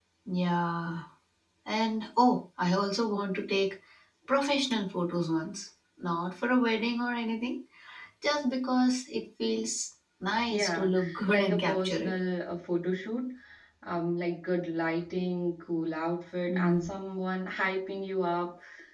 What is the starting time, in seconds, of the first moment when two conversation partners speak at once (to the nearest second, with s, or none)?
11 s